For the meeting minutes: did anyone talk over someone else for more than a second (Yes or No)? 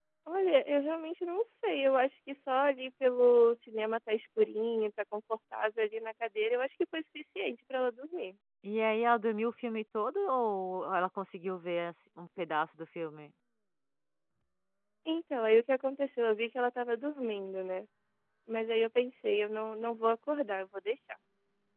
No